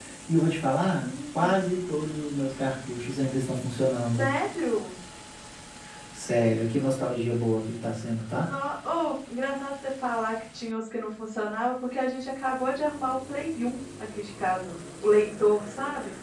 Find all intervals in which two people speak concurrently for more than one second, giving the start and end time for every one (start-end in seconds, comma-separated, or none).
none